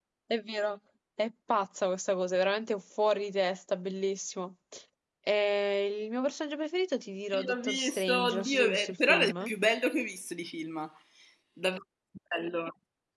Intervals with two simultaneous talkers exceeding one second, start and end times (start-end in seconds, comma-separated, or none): 7.3-9.5